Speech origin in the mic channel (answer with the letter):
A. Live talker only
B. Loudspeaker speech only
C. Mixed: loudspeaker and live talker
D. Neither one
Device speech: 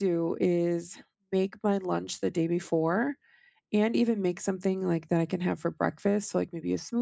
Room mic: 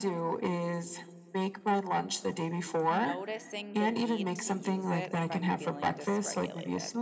C